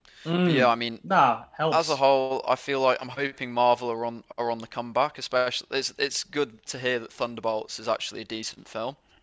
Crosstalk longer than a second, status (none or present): none